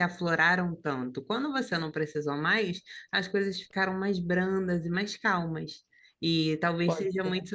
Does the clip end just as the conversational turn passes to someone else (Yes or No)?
No